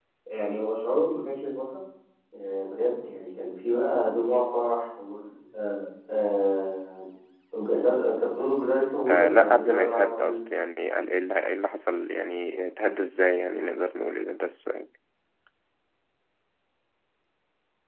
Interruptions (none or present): present